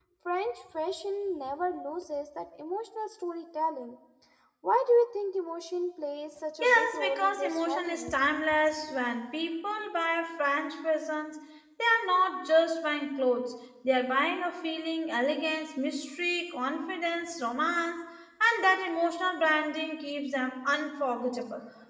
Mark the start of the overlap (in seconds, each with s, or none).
6.6 s